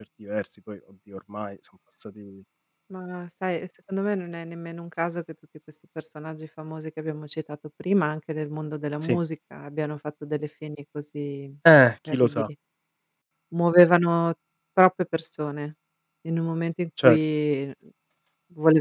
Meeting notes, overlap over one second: none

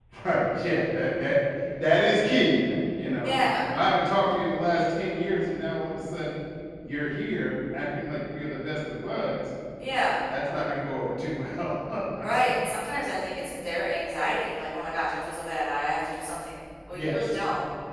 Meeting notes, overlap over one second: none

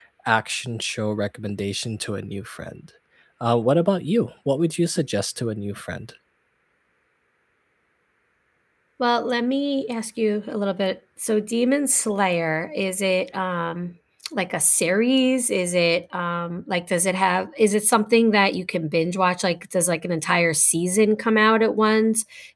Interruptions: none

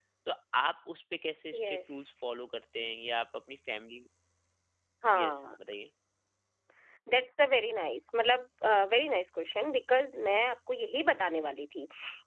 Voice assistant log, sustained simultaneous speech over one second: none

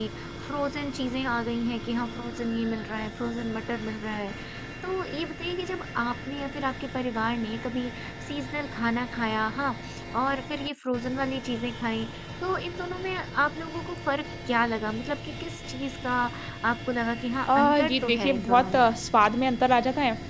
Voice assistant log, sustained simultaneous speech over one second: present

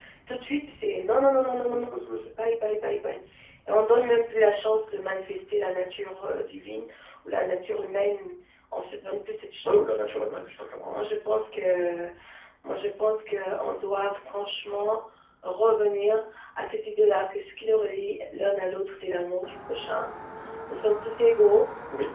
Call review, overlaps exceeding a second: none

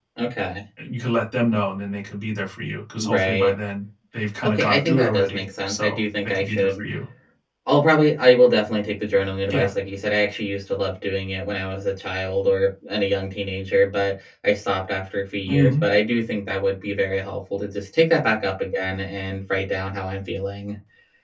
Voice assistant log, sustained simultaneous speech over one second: present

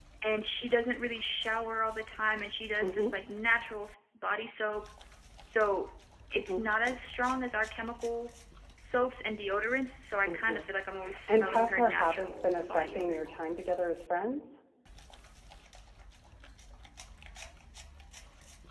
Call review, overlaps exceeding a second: present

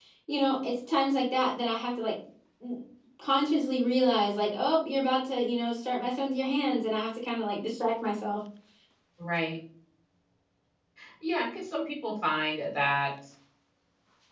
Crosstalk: none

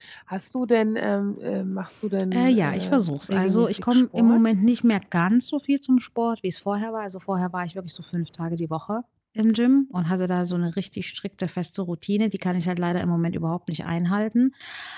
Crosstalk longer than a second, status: present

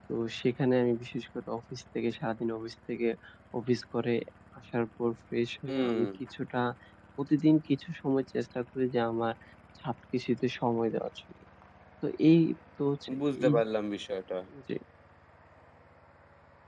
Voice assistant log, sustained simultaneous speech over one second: none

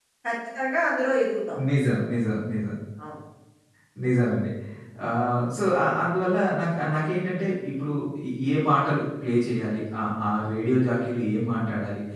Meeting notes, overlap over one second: none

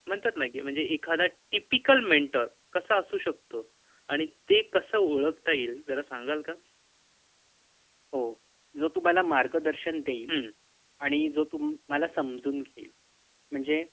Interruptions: none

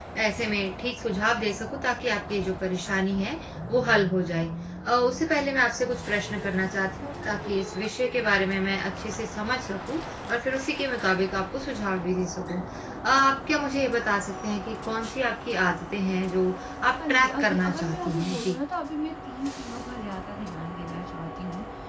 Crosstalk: present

